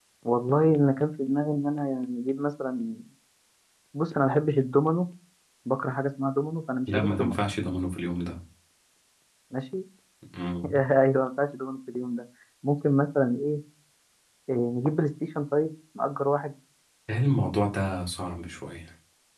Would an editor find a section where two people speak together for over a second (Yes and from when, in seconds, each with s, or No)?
No